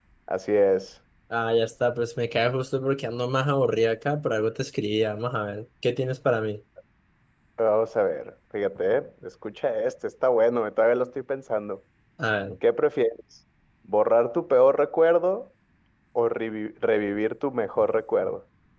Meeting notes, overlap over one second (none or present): none